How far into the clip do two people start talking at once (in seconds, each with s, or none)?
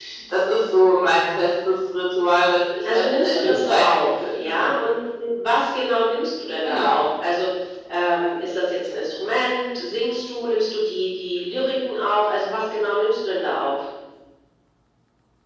2.9 s